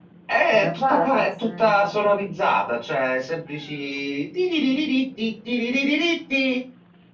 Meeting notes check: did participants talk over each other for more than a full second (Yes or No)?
Yes